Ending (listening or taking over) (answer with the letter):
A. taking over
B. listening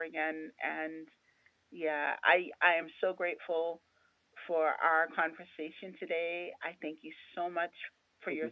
B